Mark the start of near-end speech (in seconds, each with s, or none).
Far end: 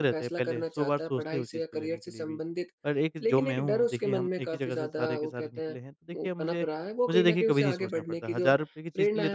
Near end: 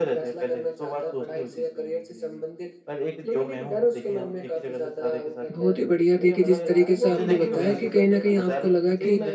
5.5 s